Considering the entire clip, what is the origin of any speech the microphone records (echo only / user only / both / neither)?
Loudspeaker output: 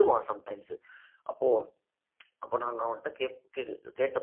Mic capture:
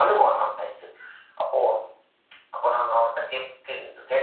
echo only